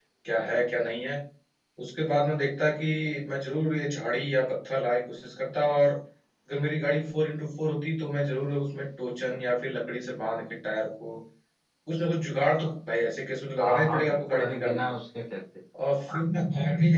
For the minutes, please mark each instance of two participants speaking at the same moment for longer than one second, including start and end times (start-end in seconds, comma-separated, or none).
13.6-14.9